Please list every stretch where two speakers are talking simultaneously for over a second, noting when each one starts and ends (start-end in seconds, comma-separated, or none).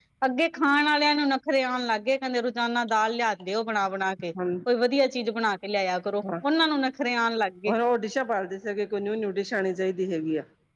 none